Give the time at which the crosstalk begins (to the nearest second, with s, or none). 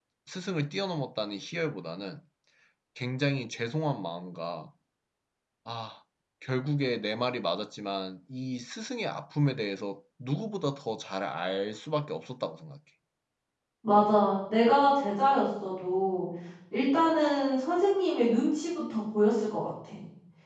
none